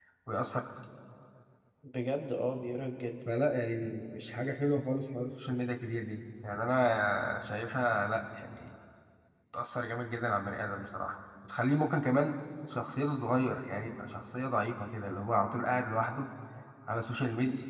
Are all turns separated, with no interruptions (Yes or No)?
Yes